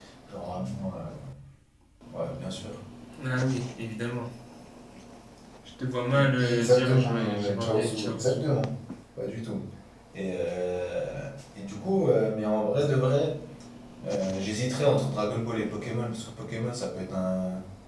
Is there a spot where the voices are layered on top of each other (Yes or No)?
Yes